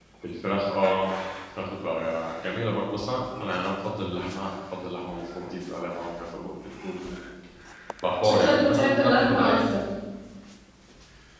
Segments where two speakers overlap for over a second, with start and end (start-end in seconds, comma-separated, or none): 8.2-9.6